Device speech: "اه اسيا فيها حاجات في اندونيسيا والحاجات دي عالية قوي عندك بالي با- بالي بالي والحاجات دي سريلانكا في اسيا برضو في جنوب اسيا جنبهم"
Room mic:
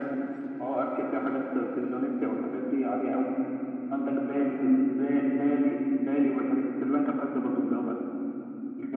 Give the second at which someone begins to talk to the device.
none

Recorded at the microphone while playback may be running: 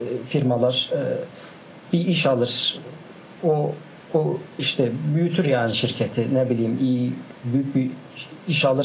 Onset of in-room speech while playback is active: none

